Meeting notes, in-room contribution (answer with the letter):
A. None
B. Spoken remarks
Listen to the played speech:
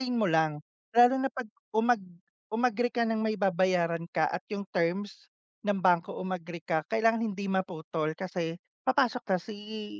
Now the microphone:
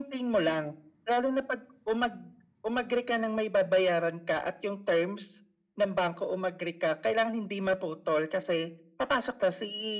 A